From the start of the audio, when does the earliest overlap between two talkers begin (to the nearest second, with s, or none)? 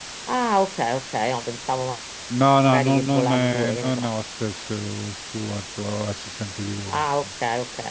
3 s